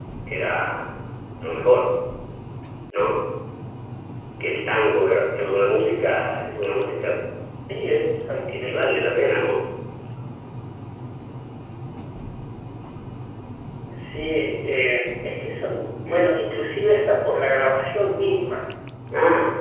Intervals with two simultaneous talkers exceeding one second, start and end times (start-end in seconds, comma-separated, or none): none